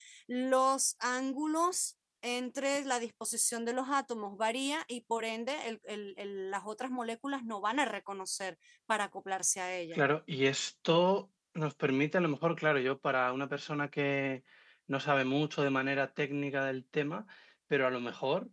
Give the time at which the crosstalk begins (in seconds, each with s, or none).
none